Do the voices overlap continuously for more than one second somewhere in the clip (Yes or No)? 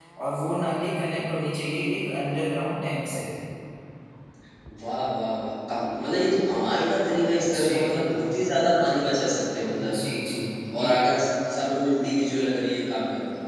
No